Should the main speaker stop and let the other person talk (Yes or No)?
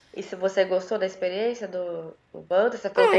Yes